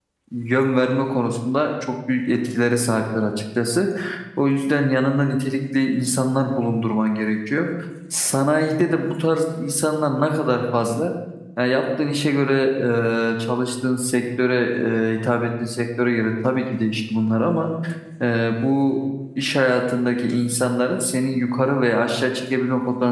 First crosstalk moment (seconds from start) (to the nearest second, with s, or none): none